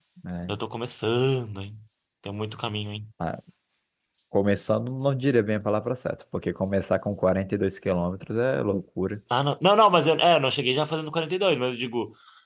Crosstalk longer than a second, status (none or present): none